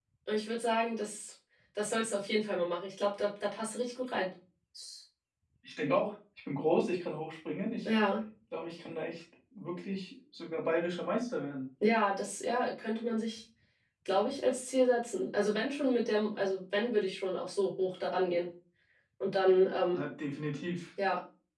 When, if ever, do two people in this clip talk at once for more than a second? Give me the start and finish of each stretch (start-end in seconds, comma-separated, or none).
none